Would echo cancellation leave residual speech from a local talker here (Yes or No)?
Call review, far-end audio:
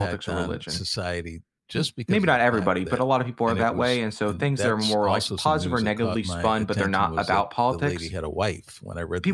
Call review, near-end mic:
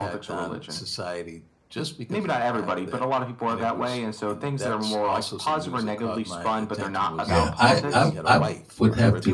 Yes